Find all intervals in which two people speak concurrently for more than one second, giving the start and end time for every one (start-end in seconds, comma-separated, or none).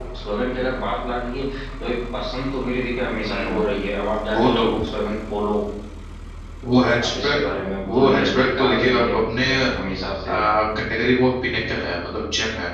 7.9-9.4